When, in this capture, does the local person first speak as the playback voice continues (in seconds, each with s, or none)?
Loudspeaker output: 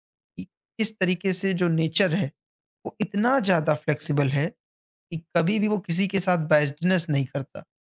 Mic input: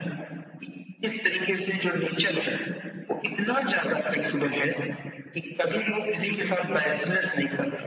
none